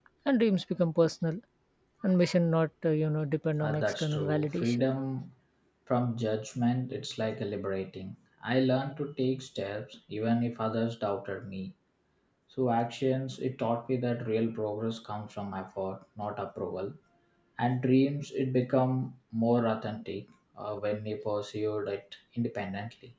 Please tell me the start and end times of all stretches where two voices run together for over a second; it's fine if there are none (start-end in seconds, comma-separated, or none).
3.6-4.8